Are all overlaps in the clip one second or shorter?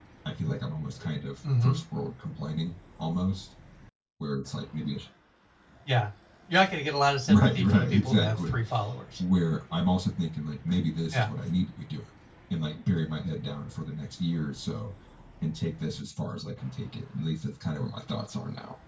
No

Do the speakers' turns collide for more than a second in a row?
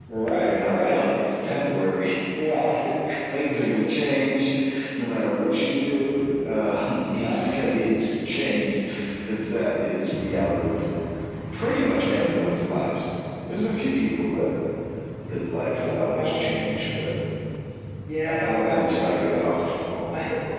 Yes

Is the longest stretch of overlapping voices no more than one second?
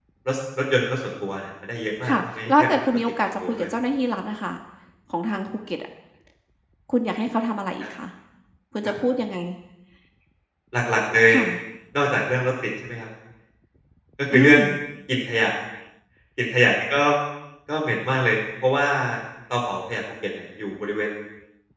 No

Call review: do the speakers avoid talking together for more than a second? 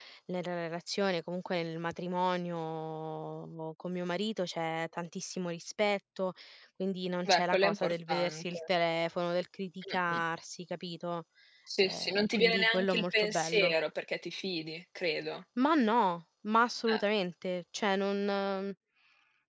No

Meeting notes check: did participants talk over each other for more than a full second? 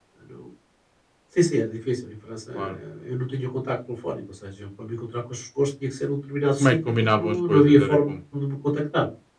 Yes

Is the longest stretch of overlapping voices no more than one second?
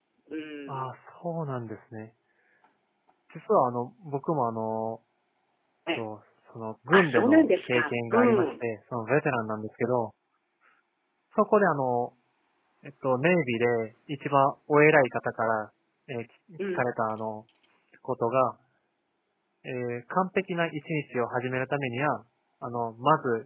No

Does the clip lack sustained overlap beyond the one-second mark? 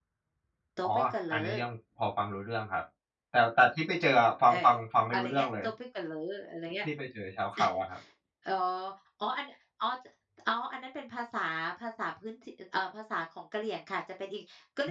Yes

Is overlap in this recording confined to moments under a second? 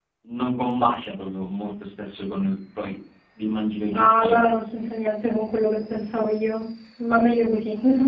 Yes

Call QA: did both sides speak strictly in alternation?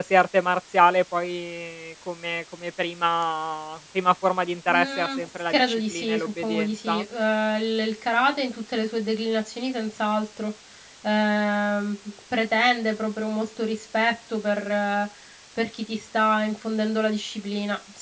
No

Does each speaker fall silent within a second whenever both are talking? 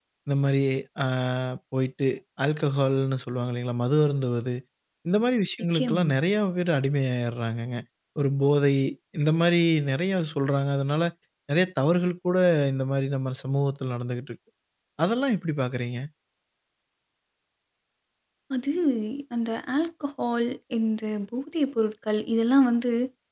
Yes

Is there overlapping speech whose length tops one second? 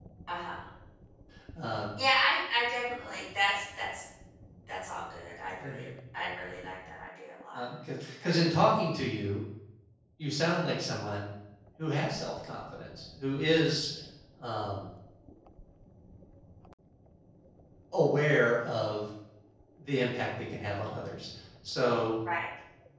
No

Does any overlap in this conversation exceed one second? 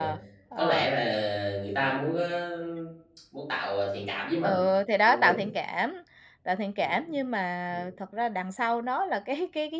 No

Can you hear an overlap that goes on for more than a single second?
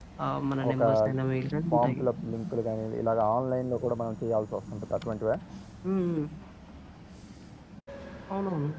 No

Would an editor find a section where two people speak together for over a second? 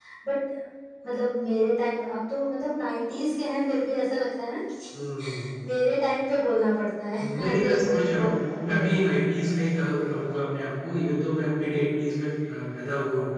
Yes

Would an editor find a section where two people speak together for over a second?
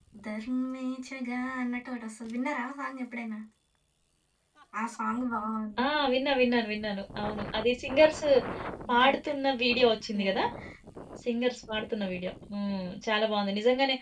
No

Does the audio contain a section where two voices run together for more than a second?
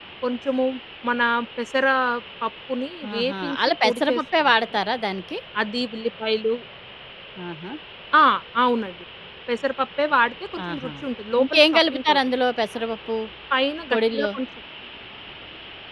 Yes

